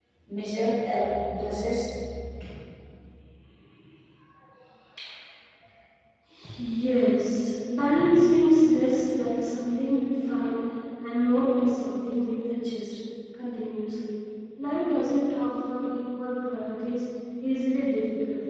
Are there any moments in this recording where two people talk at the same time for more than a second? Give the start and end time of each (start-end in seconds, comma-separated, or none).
none